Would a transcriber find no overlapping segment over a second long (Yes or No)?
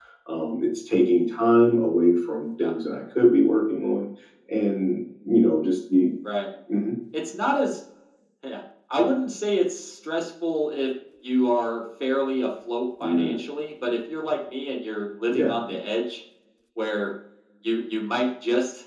Yes